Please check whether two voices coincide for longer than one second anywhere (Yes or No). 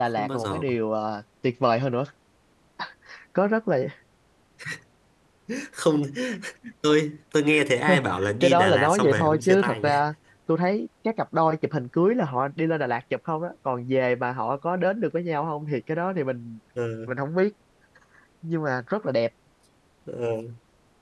Yes